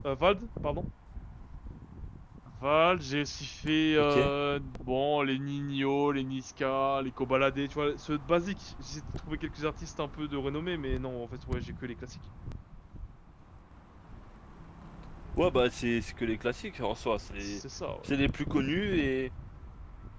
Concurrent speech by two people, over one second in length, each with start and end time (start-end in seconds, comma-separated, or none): none